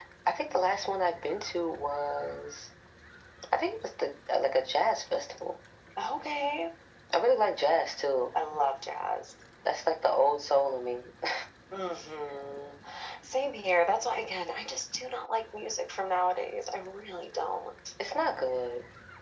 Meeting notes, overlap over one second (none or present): none